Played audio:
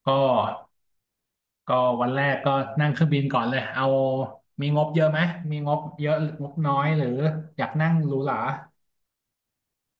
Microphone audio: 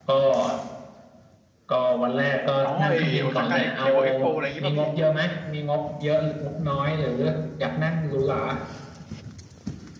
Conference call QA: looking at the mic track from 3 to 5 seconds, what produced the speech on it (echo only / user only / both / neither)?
both